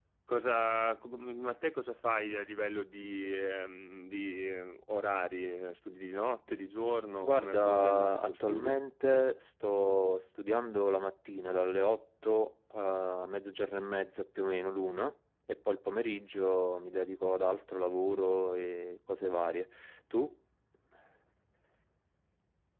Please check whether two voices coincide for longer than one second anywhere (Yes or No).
Yes